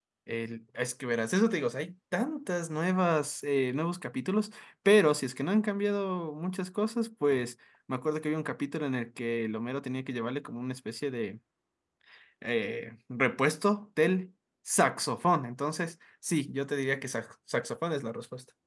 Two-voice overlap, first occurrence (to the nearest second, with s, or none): none